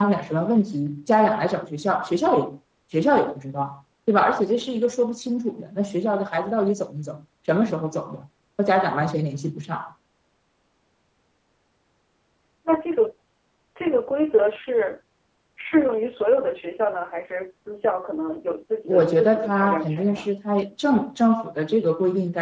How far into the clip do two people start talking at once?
18.9 s

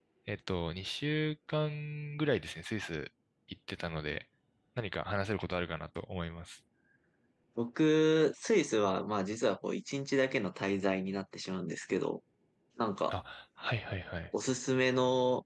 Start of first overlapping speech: none

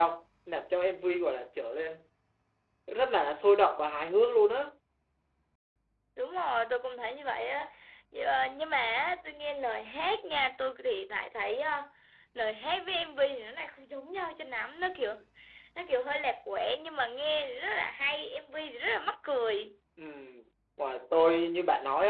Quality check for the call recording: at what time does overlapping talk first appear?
none

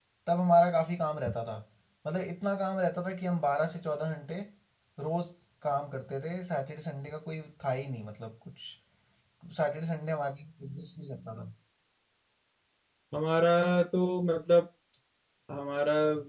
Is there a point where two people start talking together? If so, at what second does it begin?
none

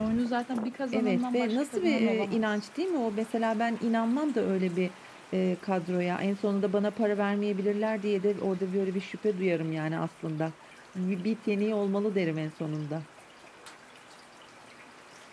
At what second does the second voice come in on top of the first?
0.9 s

